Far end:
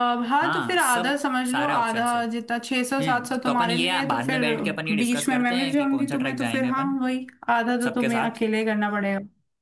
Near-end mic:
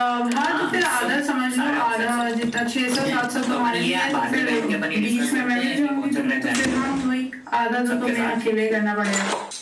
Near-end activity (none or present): none